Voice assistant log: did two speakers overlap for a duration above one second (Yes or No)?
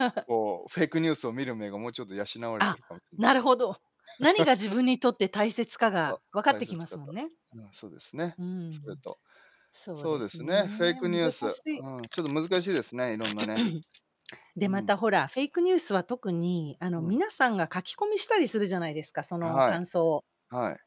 Yes